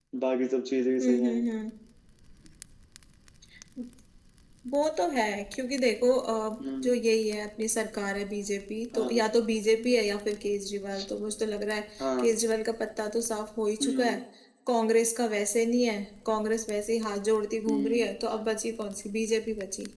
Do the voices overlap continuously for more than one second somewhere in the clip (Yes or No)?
No